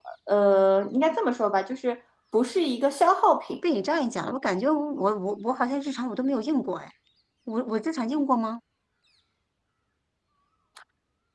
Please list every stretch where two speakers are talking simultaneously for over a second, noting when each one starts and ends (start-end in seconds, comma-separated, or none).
none